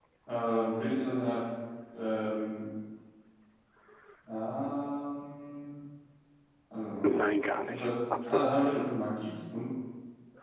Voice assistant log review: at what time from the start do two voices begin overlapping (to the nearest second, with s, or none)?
8 s